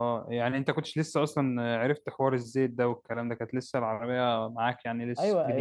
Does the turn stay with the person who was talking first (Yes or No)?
No